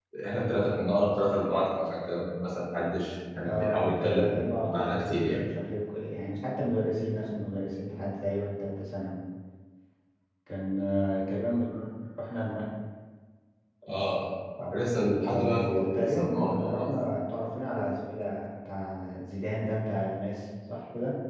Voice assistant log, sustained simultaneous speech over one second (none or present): present